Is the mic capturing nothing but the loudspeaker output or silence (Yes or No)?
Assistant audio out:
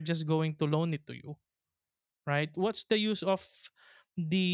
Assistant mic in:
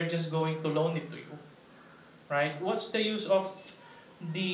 Yes